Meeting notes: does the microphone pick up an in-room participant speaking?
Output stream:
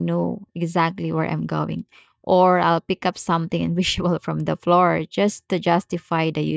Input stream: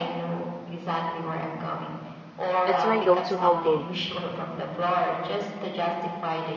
Yes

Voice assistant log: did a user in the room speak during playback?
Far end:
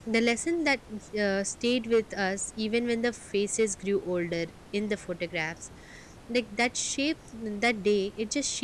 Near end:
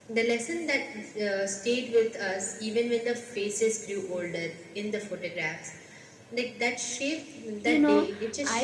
Yes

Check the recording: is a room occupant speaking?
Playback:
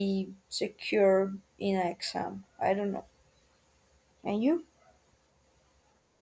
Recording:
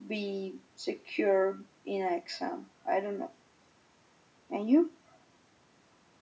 No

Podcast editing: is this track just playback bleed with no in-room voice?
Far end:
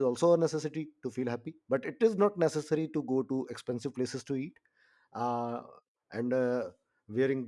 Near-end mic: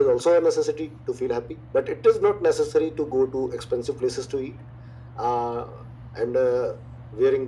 Yes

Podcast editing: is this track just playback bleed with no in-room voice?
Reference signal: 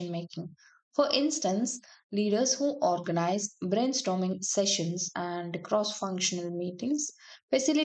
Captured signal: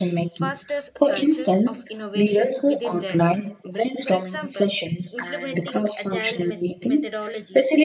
No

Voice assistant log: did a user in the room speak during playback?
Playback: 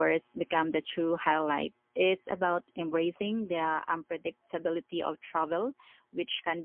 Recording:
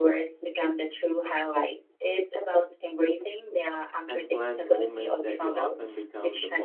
Yes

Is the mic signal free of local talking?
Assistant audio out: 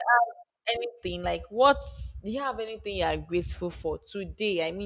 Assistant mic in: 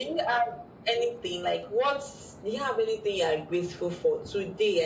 Yes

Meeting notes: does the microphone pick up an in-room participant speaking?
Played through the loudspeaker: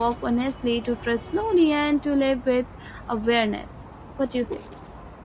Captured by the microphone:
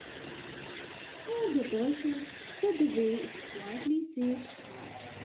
Yes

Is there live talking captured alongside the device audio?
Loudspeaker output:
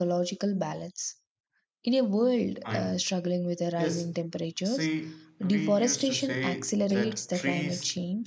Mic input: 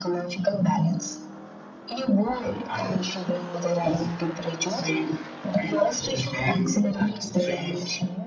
No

